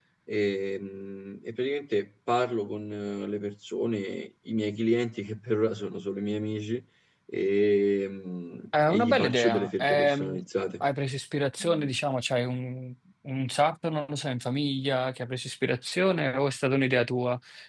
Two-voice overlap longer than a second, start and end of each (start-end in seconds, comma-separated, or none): 8.9-10.4